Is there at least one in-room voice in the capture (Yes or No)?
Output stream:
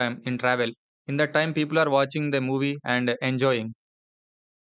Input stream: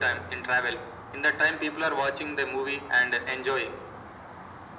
No